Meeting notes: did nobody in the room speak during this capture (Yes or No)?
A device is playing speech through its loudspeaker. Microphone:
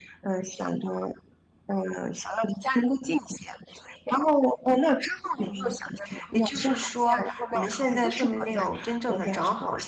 No